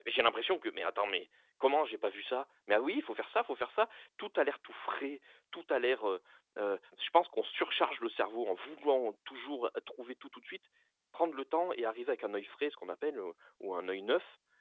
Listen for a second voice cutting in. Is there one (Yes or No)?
No